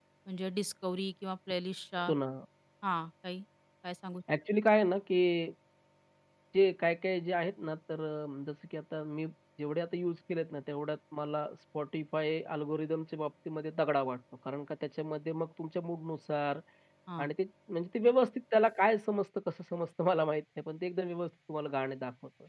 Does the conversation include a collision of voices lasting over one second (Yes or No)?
No